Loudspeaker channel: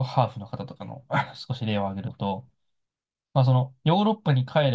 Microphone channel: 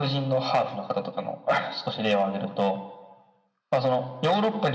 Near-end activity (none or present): none